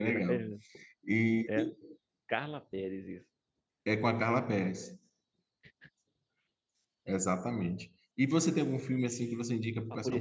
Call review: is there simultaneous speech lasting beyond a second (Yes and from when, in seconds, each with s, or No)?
No